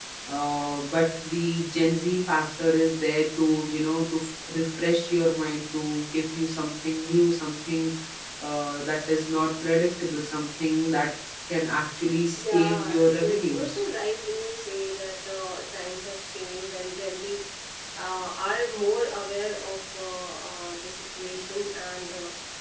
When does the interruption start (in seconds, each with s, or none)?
12.3 s